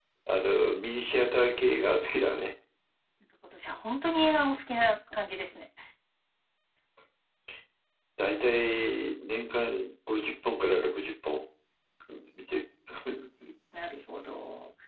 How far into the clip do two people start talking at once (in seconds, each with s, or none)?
none